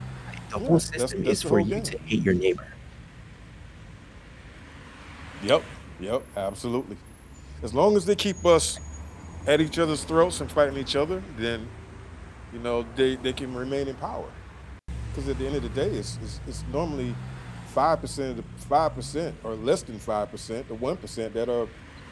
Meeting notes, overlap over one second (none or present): present